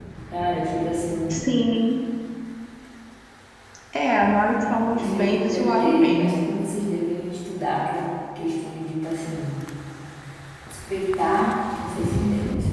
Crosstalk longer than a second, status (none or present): present